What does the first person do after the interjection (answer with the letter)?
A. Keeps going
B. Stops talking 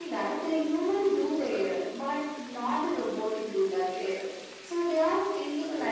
A